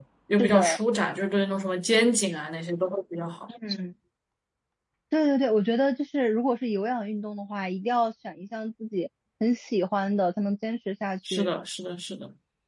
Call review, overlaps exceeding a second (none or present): none